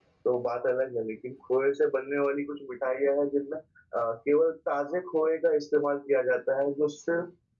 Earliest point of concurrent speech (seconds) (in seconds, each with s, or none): none